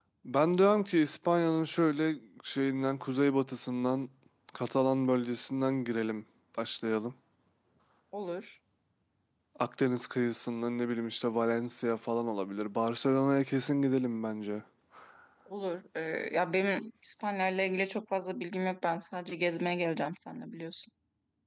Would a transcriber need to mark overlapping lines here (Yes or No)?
No